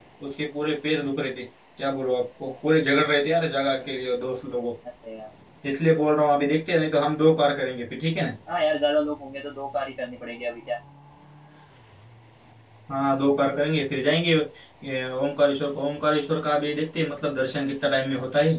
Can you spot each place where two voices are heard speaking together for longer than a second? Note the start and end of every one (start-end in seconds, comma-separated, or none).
none